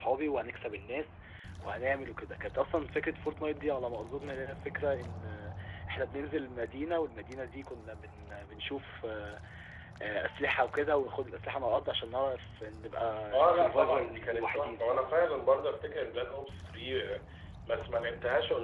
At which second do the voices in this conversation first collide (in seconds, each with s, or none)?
13.3 s